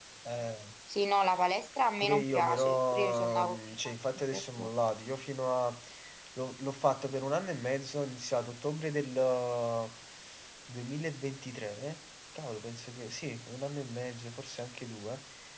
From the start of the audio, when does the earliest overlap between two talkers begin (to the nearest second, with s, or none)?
2 s